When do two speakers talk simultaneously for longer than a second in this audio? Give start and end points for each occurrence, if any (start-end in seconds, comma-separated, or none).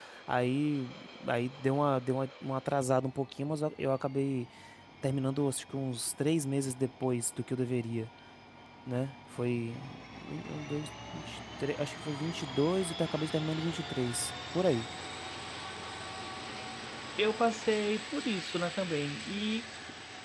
none